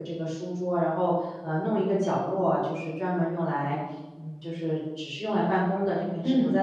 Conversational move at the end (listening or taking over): listening